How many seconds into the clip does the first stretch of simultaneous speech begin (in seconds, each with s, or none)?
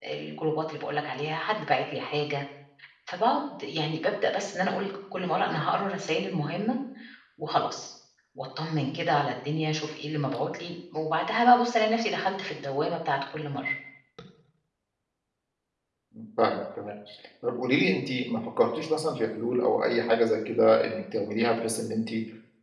none